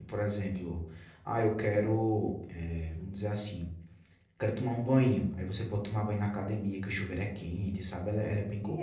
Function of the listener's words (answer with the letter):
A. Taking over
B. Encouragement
A